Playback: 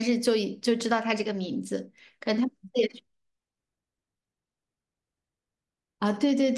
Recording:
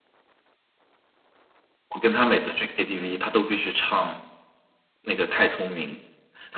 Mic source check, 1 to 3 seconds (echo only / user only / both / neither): user only